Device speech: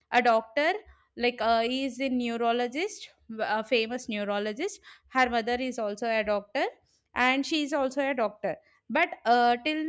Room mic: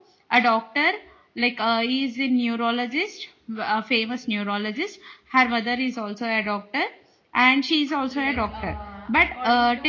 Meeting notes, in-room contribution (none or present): present